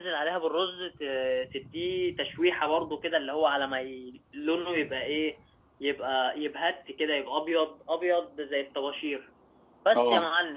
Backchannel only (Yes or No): Yes